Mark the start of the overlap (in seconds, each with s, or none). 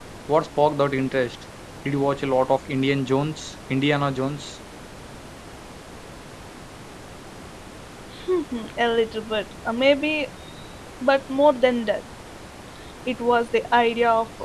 none